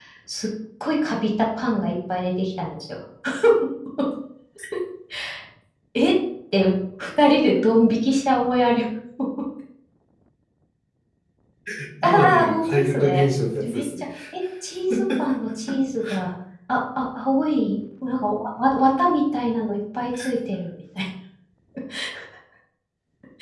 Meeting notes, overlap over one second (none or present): present